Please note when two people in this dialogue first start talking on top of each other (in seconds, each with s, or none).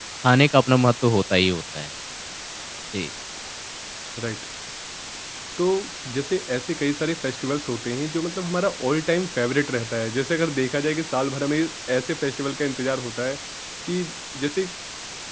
none